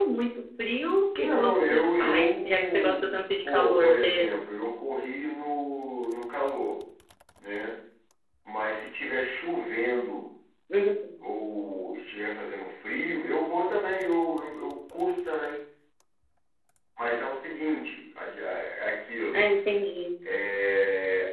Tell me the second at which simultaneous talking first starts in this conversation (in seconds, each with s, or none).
1.2 s